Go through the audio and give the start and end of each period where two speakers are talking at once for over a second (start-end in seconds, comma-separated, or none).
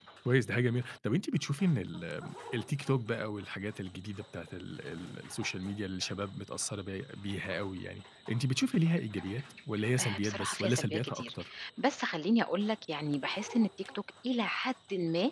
10.0-11.3